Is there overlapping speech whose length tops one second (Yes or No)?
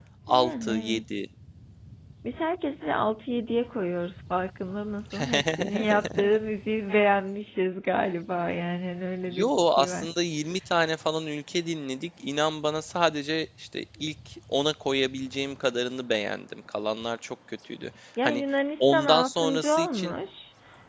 Yes